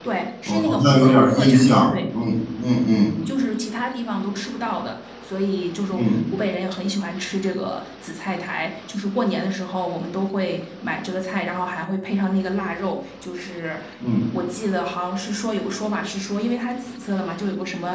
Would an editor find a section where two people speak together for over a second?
Yes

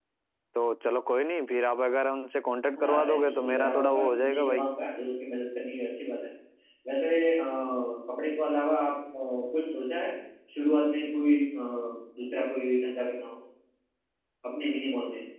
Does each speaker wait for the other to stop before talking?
No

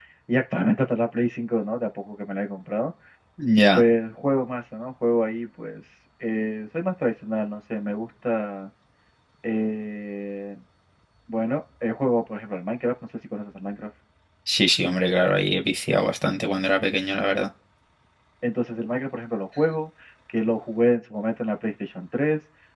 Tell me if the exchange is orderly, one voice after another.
Yes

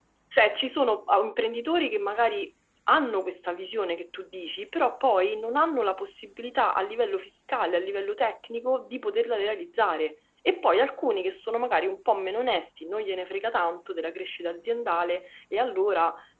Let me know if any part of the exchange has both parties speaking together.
No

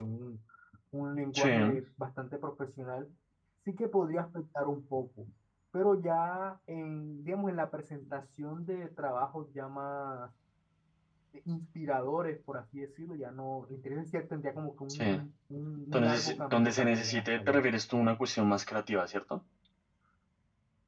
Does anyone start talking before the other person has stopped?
Yes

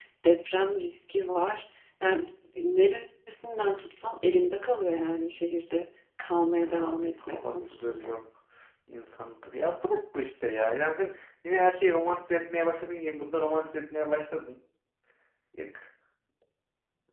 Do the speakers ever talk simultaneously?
Yes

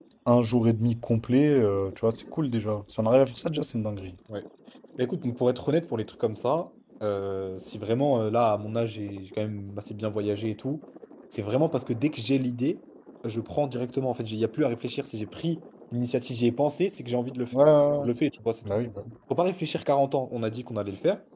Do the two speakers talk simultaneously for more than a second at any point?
No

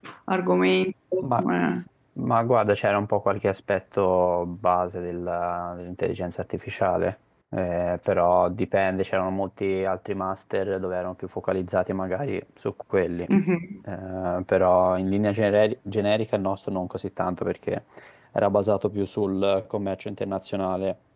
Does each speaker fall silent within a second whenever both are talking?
Yes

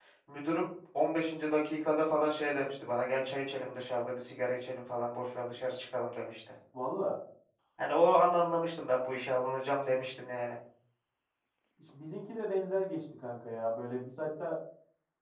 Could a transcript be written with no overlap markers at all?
Yes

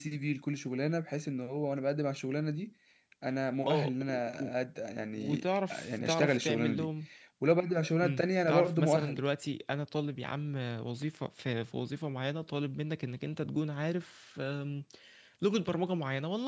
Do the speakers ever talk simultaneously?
Yes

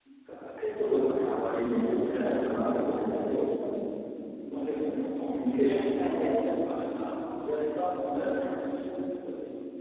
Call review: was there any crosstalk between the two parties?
Yes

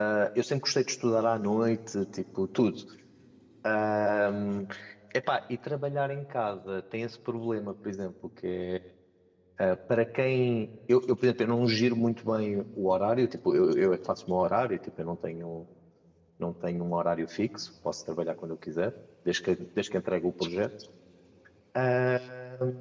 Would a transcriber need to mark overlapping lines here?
No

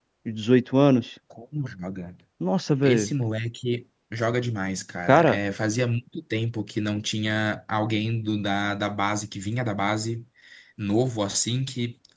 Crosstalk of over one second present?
No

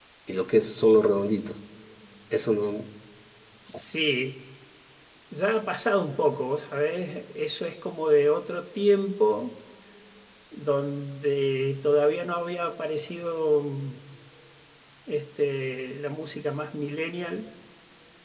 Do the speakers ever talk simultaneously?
No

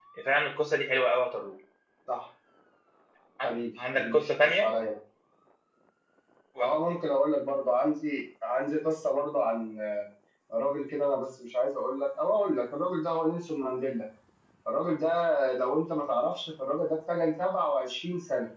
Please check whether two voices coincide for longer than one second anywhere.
Yes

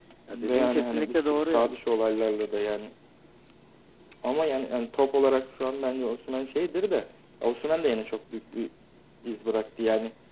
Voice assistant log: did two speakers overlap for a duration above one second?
Yes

